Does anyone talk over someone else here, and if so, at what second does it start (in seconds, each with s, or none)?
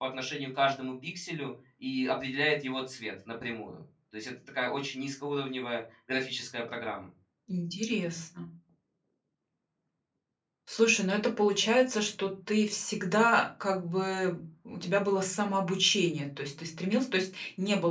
none